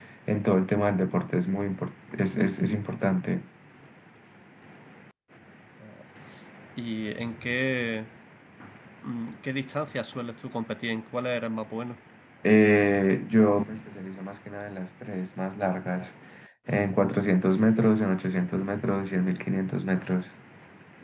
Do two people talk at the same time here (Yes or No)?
No